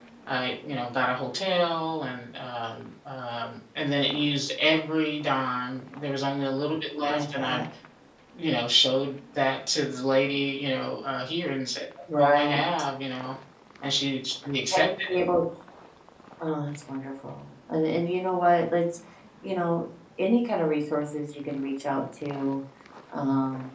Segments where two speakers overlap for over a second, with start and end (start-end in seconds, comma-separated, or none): none